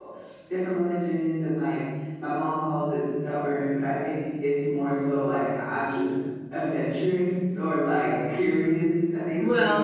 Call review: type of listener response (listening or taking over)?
taking over